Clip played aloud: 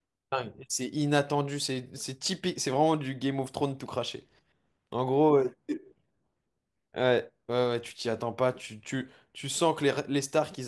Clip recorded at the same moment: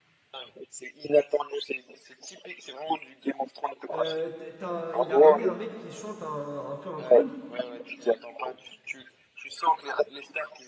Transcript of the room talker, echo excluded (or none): Euh, t- t'as un- il a ramené un mec qui chante un, un peu un clown